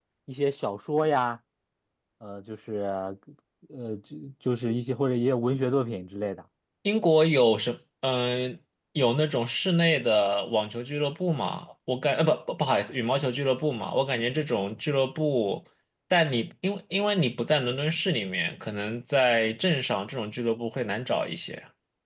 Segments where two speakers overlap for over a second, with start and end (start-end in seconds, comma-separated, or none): none